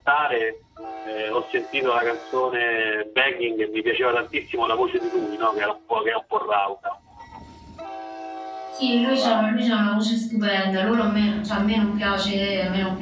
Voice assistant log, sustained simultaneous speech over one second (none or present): none